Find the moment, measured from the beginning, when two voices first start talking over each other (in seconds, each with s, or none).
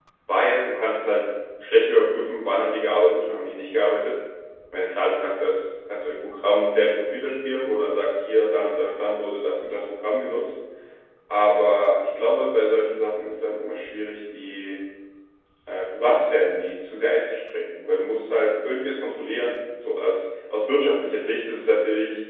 none